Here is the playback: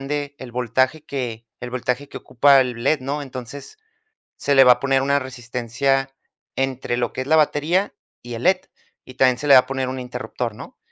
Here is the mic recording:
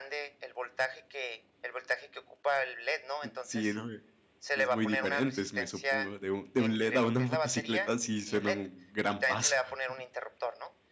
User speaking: Yes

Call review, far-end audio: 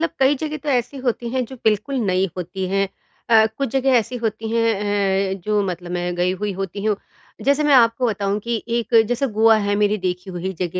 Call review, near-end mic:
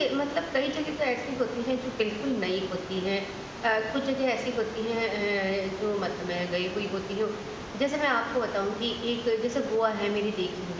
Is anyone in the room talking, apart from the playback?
No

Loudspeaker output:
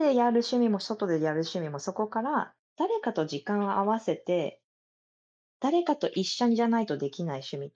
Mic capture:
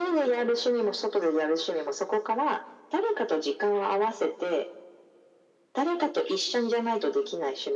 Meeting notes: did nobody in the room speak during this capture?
Yes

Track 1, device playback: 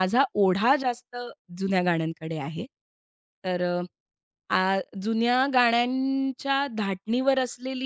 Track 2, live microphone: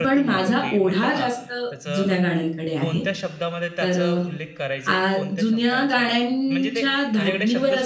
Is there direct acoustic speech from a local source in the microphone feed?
Yes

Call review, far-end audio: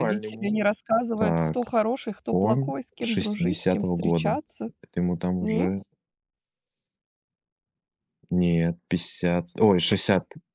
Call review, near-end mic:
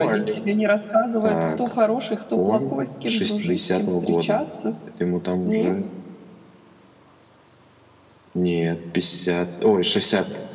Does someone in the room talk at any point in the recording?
No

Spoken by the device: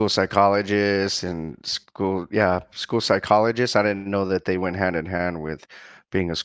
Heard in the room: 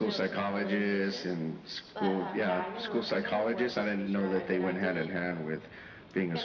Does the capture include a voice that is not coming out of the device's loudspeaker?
Yes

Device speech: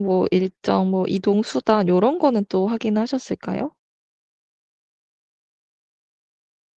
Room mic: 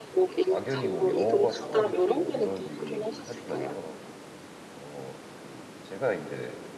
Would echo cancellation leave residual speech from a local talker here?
Yes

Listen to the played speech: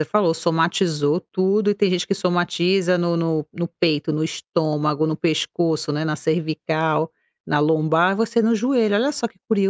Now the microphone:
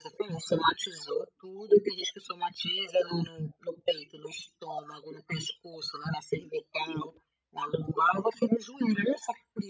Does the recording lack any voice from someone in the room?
Yes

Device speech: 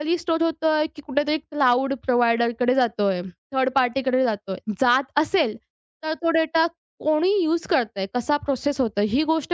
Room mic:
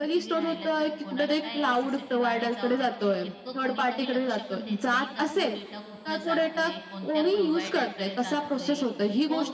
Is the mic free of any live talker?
No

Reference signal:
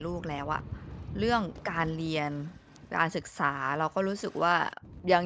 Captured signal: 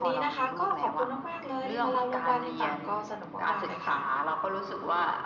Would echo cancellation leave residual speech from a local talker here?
Yes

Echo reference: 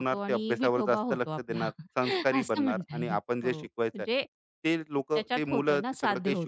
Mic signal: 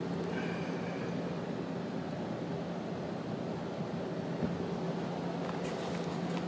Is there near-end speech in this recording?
No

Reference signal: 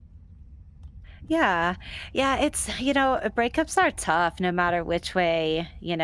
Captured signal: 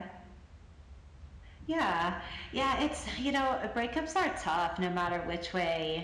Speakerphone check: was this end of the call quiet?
Yes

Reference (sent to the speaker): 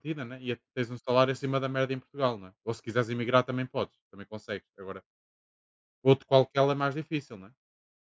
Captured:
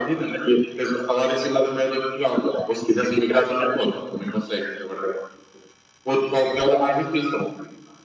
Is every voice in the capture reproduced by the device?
Yes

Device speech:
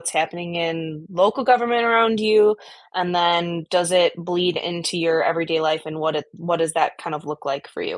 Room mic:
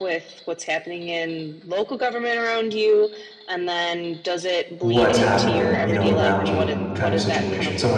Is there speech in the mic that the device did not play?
Yes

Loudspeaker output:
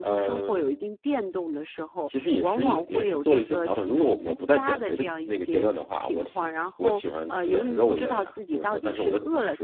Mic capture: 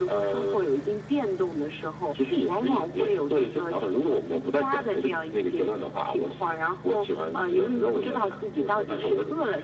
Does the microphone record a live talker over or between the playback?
No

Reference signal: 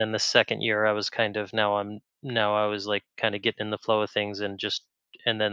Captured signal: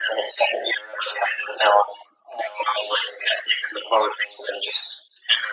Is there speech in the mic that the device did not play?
No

